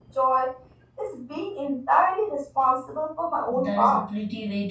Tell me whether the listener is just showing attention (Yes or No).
No